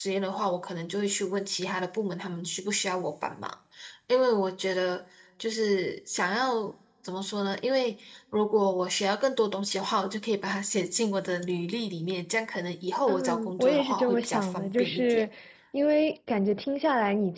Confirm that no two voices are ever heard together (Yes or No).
No